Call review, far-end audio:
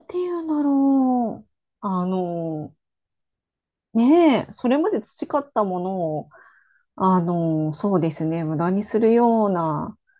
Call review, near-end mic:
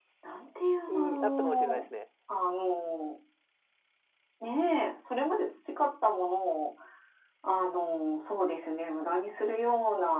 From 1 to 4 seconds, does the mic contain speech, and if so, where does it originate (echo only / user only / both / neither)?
both